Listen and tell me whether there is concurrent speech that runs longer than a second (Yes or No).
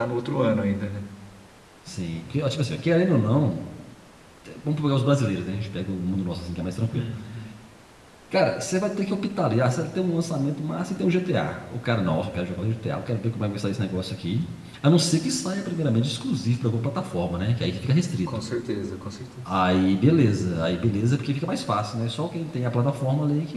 No